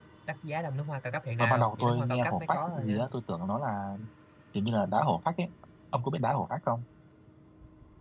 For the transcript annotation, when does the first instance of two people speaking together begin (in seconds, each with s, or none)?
1.4 s